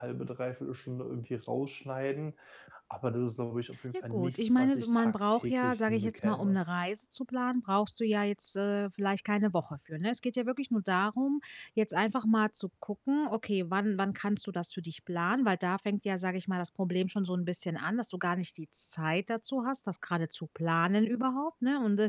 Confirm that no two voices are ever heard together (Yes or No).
No